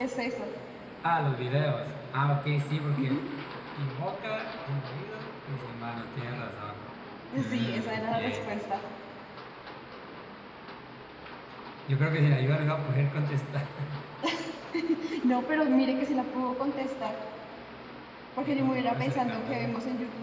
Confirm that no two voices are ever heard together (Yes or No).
No